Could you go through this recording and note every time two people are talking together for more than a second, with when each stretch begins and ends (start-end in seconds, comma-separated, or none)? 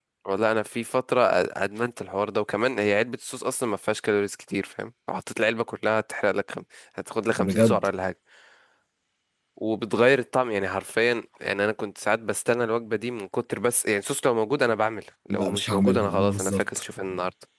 15.3-16.8